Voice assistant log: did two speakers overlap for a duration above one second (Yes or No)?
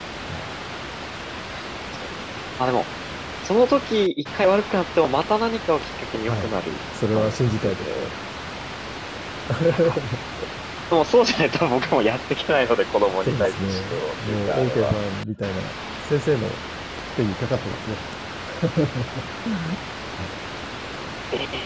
Yes